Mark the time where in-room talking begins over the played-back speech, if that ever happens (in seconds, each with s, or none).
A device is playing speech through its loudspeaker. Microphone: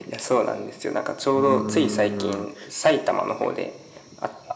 1.3 s